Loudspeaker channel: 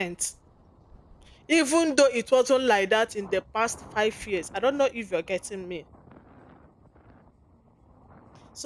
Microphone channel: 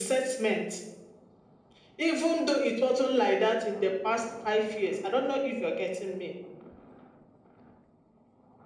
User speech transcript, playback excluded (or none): none